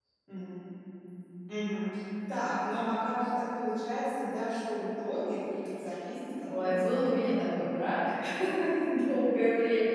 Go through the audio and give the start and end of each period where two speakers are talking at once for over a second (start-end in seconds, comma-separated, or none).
6.5-7.7